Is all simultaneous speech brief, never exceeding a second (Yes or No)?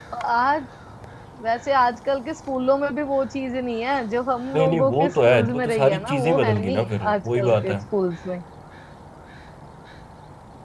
No